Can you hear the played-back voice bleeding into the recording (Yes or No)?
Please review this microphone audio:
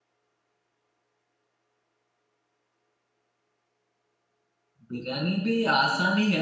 No